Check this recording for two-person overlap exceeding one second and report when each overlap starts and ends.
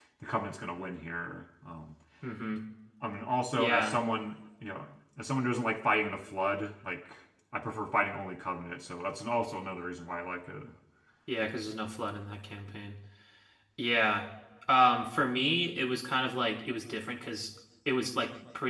none

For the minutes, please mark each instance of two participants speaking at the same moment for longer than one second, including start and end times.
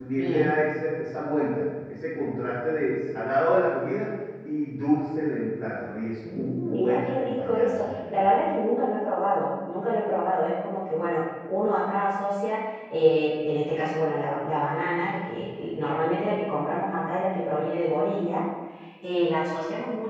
6.3-8.2

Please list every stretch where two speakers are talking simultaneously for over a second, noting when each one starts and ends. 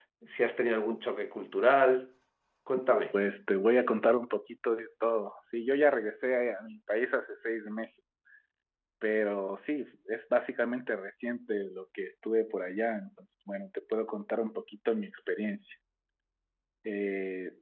none

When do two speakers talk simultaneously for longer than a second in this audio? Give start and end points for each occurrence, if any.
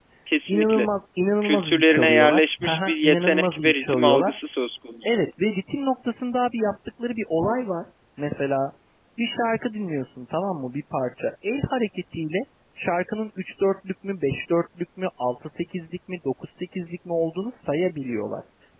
1.4-4.3

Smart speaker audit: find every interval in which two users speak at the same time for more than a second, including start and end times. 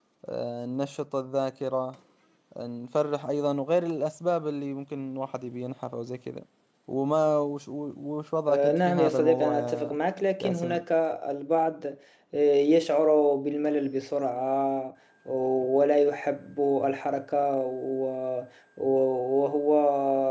8.5-10.0

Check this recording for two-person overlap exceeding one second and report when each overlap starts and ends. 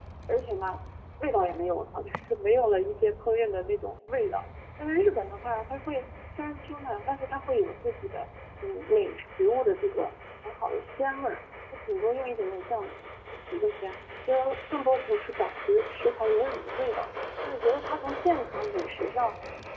none

